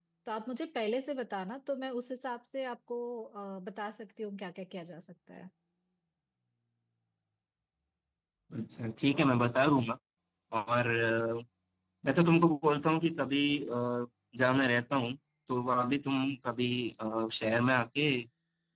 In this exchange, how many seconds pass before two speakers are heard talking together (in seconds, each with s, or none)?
none